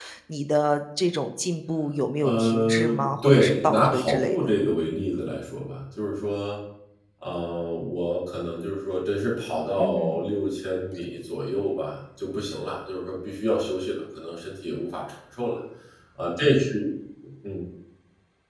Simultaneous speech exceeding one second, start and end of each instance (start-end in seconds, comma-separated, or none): 2.2-4.4